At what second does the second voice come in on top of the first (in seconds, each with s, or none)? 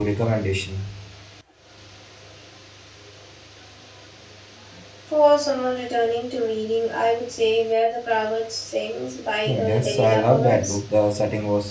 9.4 s